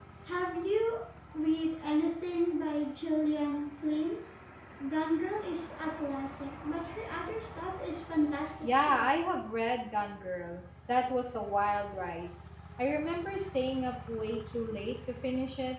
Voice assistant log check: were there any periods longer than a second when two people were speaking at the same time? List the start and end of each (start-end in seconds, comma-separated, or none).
none